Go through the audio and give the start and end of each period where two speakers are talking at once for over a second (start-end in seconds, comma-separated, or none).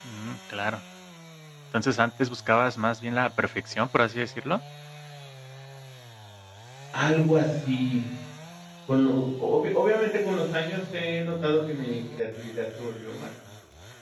none